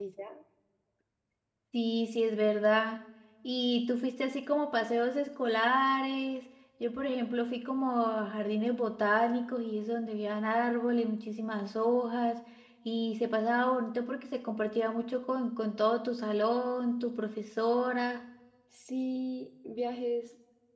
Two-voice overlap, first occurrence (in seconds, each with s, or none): none